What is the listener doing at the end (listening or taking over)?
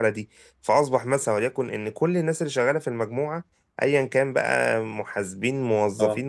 listening